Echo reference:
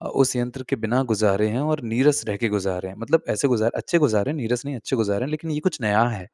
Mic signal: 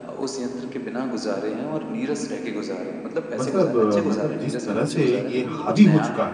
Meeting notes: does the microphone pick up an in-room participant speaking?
Yes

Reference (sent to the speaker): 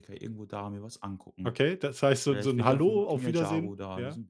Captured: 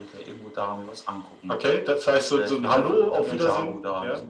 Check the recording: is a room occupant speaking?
No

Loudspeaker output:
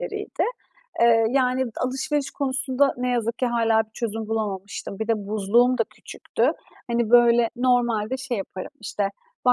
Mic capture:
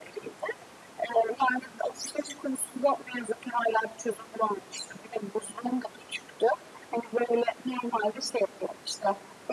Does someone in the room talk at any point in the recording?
No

